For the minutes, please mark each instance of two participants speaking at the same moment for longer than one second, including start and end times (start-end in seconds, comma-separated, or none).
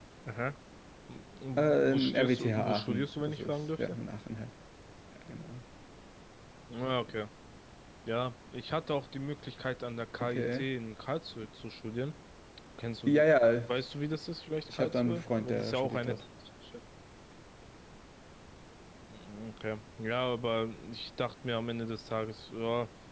1.6-4.0, 14.7-16.2